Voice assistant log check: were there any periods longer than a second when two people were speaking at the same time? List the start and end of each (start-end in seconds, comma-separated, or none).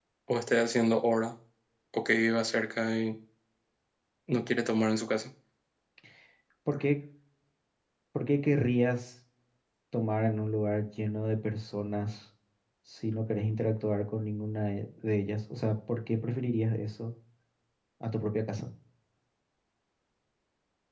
none